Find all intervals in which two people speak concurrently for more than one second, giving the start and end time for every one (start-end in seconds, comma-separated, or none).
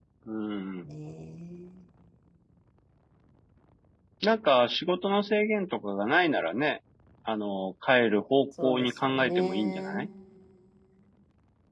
8.6-10.1